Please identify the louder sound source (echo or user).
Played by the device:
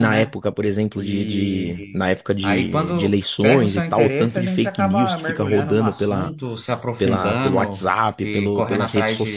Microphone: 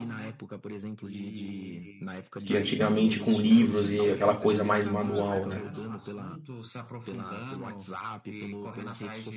user